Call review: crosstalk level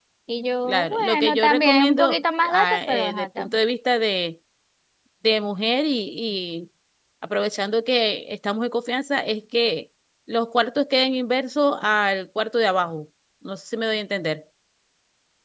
present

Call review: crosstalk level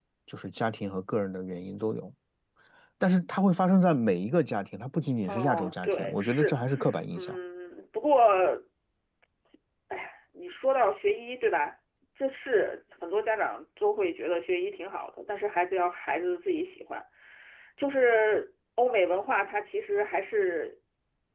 present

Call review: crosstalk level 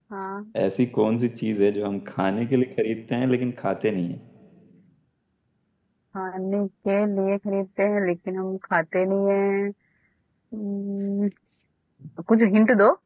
none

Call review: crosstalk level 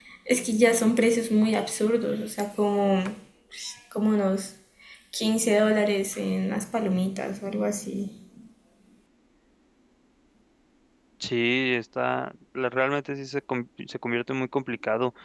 none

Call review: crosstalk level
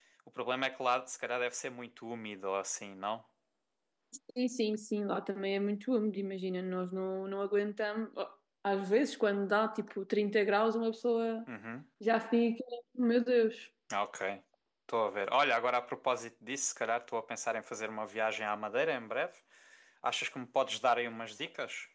none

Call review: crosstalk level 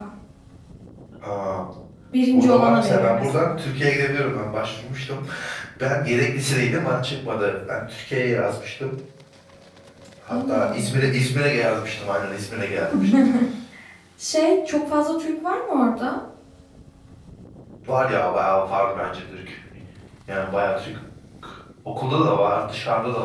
present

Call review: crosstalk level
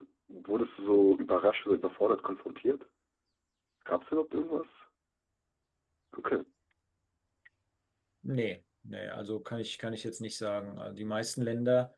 none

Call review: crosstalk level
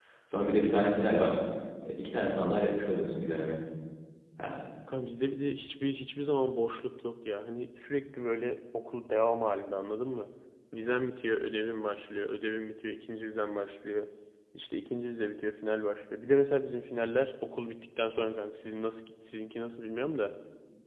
none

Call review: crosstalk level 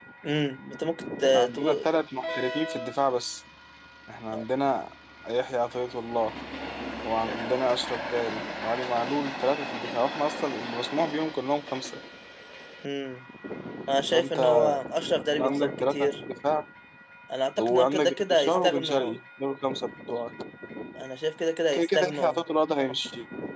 present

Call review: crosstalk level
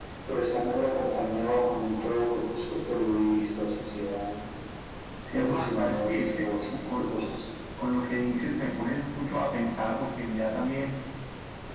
present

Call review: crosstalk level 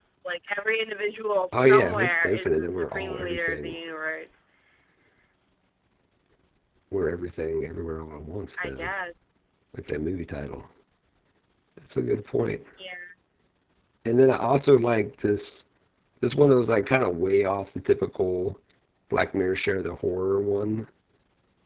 present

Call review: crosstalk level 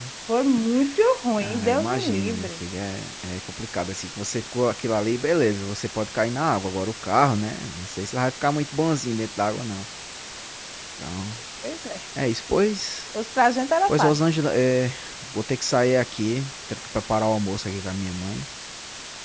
present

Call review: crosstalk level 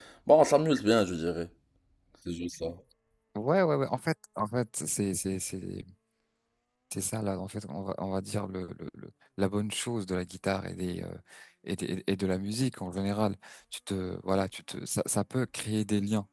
none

